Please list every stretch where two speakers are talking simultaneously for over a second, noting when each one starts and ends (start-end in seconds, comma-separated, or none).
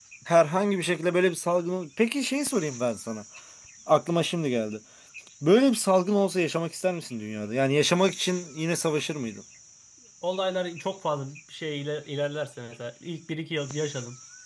none